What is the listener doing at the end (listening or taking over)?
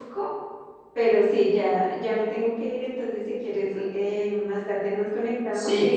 listening